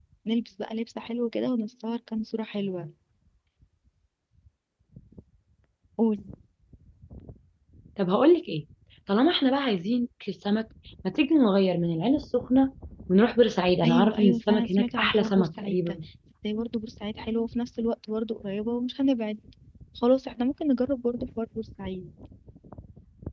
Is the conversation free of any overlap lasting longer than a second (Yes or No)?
No